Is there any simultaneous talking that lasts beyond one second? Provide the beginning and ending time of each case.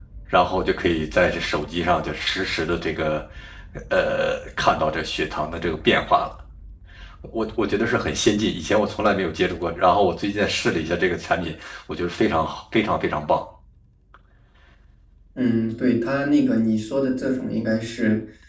none

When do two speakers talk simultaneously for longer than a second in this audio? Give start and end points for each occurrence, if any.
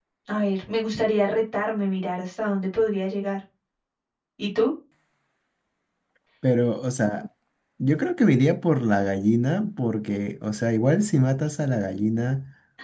none

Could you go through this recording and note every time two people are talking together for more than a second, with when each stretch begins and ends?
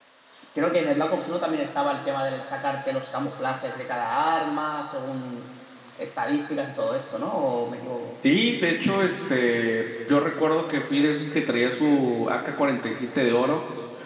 none

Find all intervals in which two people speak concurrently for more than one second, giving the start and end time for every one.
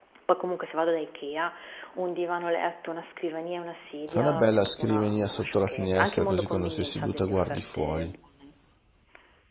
4.1-8.1

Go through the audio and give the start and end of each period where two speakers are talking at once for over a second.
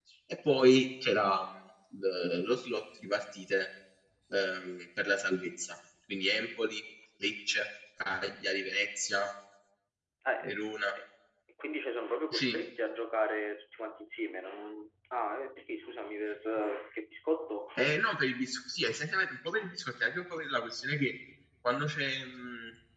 none

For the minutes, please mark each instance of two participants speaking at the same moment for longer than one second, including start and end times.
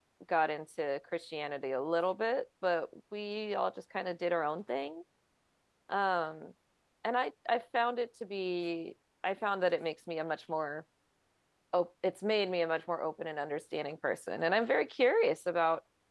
none

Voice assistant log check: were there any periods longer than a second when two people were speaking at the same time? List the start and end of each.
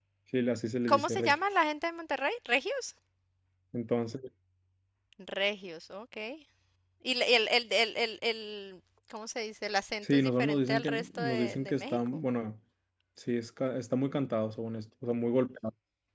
10.0-12.2

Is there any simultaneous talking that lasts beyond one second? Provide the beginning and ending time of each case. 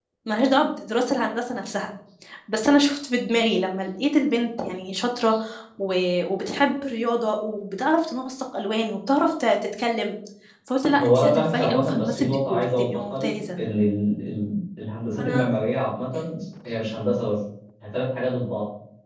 11.0-13.3

